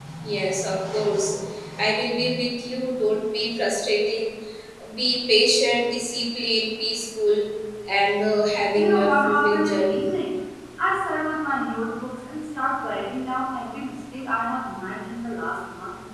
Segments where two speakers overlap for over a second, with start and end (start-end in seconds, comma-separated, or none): 8.7-10.0